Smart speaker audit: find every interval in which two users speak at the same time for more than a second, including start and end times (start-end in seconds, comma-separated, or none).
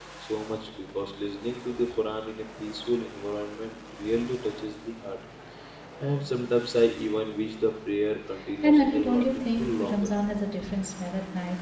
8.6-10.1